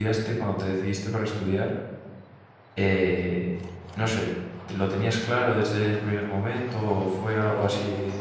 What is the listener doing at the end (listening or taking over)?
taking over